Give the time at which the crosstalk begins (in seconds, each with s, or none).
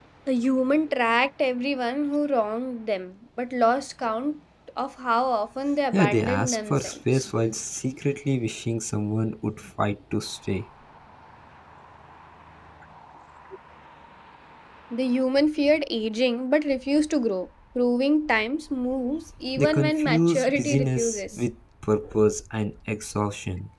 5.9 s